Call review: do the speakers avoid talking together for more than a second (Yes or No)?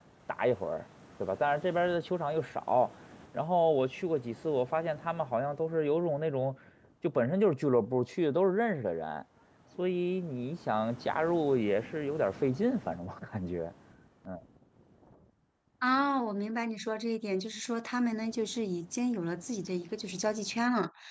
Yes